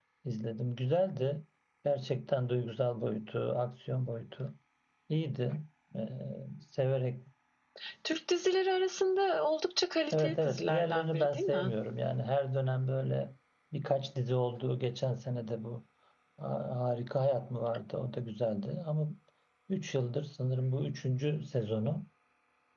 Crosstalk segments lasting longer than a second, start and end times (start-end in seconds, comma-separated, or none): 10.1-11.7